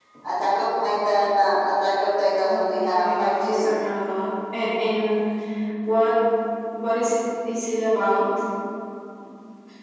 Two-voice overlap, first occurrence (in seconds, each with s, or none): 2.4 s